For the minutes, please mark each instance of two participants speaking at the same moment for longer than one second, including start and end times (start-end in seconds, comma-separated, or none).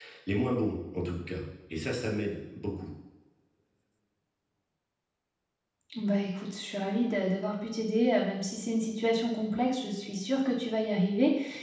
none